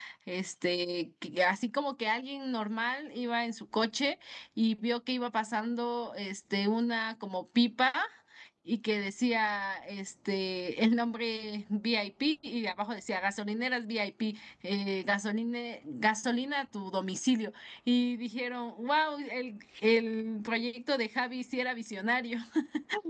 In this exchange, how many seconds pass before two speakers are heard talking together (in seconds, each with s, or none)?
none